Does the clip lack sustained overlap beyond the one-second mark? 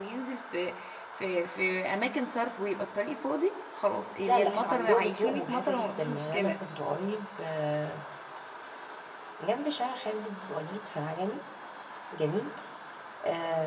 No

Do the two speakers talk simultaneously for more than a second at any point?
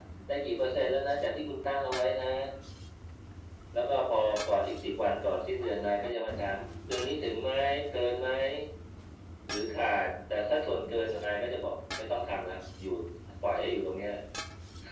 No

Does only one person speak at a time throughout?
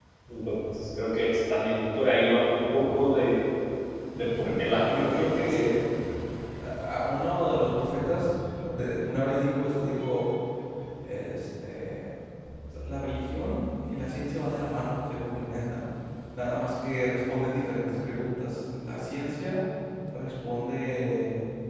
No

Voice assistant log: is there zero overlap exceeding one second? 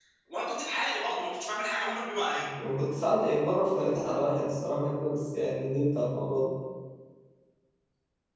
Yes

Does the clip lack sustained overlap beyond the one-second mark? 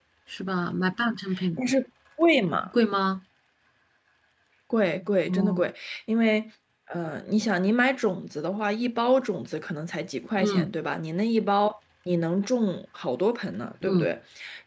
Yes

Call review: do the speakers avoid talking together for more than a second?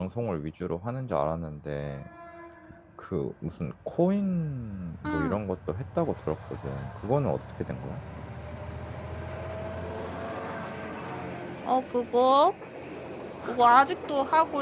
Yes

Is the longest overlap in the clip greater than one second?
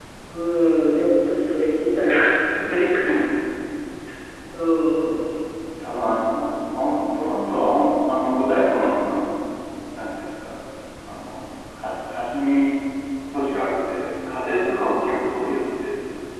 No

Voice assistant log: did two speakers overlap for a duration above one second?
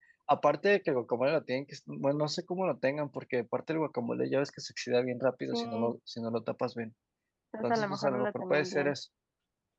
Yes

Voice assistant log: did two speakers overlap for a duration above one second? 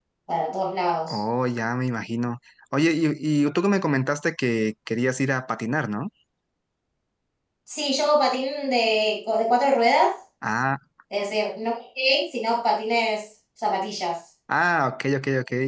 No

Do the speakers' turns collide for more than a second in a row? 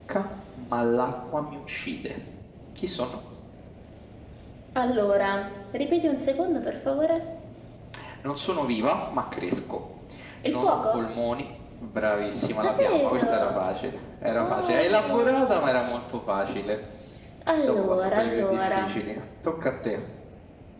Yes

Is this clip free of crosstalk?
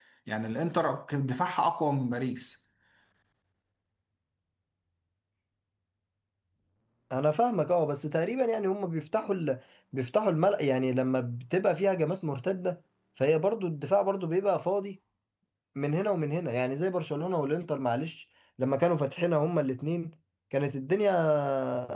Yes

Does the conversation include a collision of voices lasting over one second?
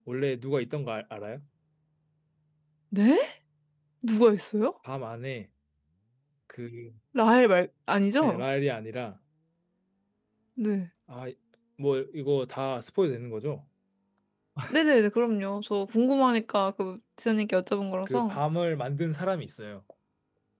No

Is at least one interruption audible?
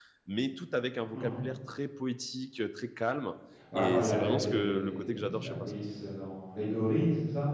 Yes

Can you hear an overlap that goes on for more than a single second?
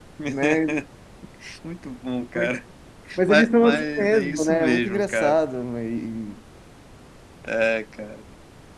Yes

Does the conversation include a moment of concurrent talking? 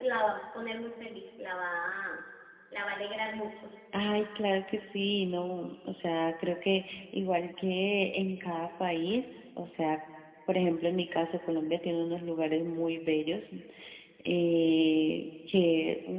No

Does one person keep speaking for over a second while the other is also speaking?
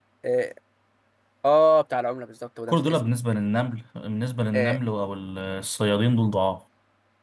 No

